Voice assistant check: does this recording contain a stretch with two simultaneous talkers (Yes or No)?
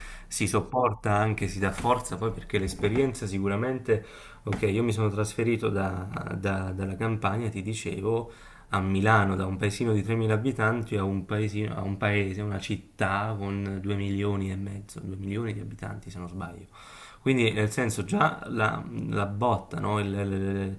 No